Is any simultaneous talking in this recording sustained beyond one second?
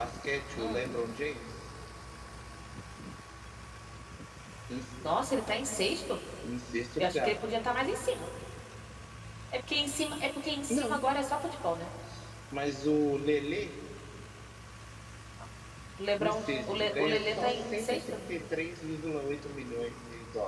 Yes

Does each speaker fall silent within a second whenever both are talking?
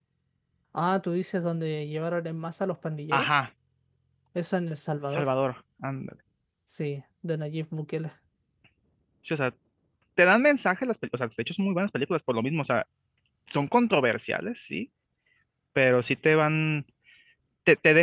Yes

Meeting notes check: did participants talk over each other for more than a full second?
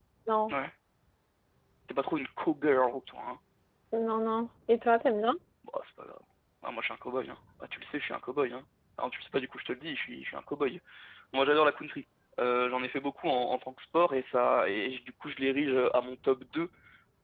No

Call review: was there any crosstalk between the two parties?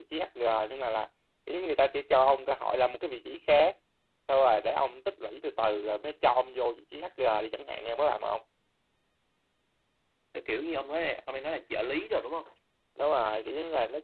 No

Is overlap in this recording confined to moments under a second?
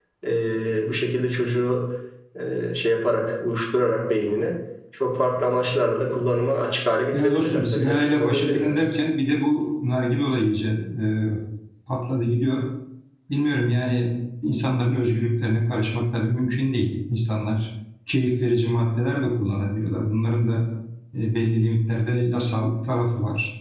No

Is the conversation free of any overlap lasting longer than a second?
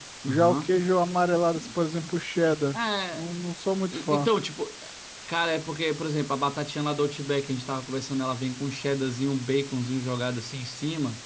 Yes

